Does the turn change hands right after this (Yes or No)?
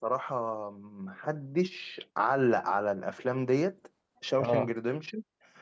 No